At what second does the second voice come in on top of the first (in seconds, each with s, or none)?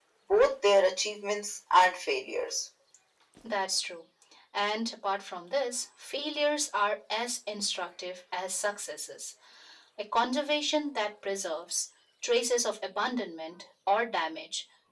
none